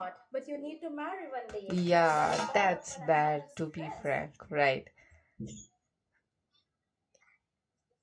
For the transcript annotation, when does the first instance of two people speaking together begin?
2 s

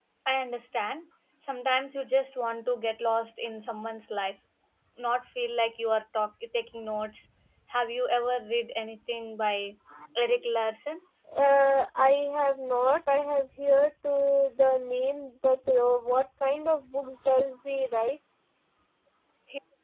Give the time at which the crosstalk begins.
none

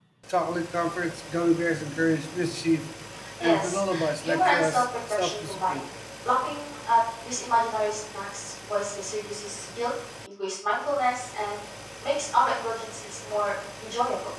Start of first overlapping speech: 3 s

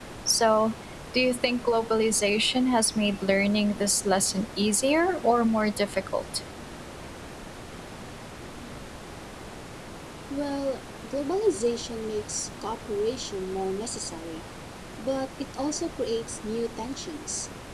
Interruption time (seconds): none

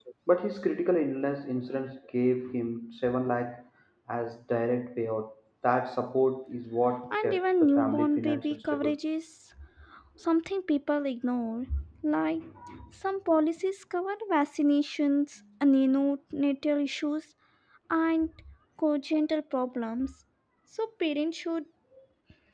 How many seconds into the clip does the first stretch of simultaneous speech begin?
7 s

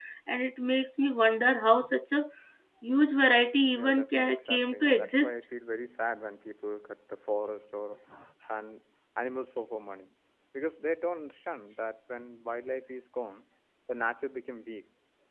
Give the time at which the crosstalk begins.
4 s

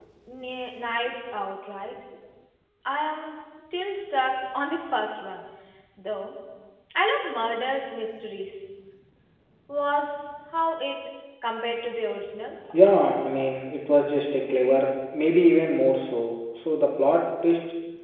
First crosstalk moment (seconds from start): none

